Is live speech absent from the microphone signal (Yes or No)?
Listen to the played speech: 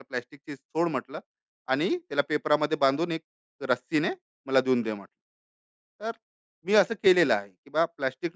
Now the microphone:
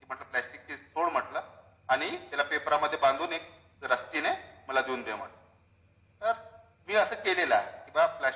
Yes